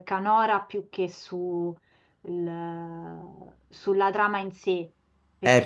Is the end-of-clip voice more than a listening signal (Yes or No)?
Yes